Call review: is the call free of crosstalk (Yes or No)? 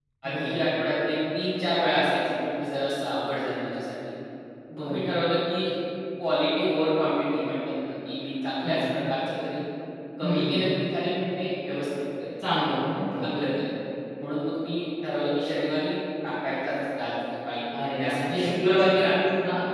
No